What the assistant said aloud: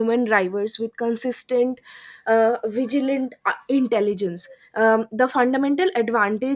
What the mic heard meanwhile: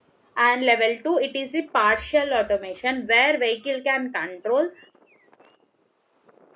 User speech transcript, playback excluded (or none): and level 2 it is a partial automation where vehicle can control